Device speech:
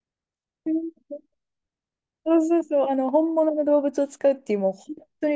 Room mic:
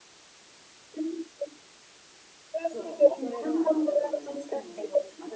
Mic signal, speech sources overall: both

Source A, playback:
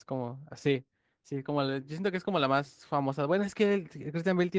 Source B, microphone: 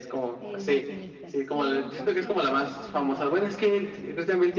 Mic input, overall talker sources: both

